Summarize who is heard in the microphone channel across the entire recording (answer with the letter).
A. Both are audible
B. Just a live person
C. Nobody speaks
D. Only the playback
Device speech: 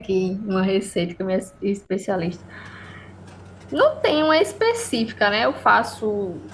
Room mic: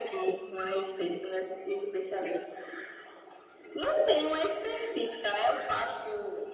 D